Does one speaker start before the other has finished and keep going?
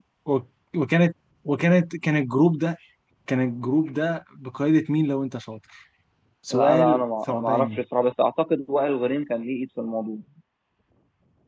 Yes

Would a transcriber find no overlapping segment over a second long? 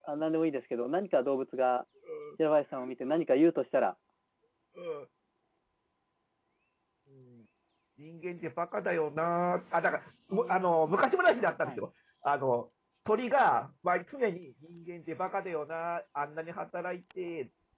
Yes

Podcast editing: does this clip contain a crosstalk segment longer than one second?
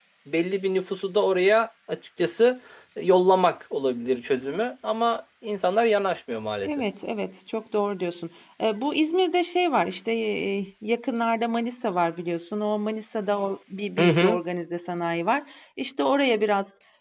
No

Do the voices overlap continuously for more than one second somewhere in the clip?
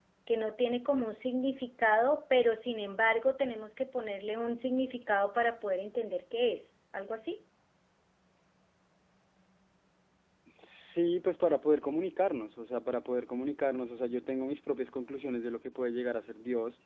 No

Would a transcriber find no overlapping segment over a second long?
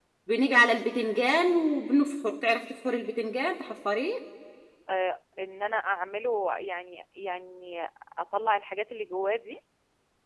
Yes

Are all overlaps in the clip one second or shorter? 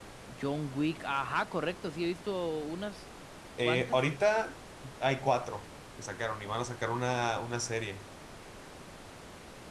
Yes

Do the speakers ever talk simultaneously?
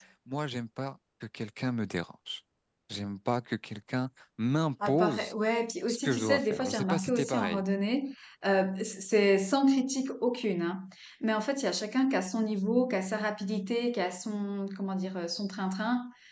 Yes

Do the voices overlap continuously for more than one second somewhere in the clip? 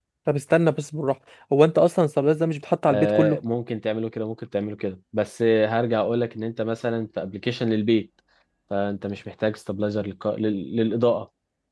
No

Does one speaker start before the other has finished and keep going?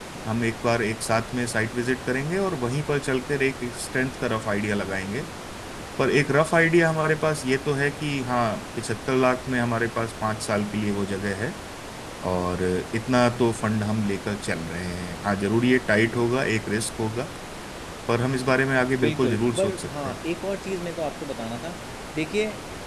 Yes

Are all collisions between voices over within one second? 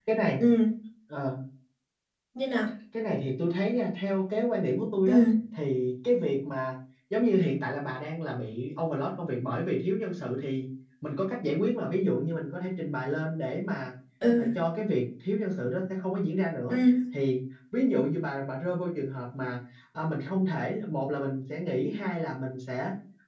Yes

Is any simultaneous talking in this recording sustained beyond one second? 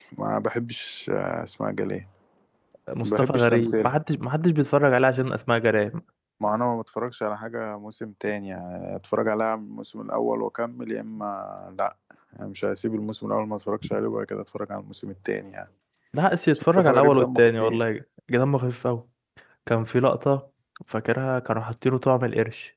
Yes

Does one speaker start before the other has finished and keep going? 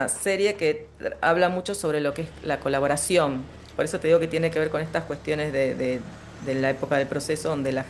No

